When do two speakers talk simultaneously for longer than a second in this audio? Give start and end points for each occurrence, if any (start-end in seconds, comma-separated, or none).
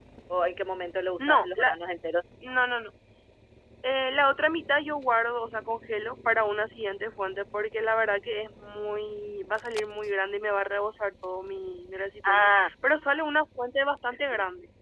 none